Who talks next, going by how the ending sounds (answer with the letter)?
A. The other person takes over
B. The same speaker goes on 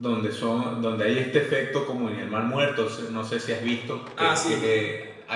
B